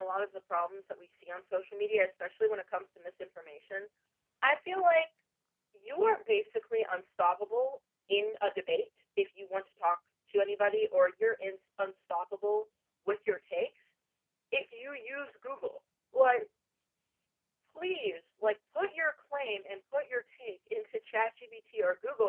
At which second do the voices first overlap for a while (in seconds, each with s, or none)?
none